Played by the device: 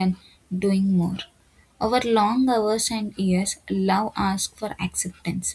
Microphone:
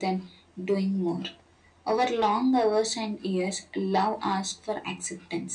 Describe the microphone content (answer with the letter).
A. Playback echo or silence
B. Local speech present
A